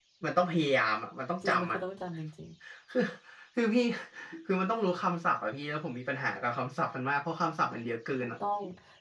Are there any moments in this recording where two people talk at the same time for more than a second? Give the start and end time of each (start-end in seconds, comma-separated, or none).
none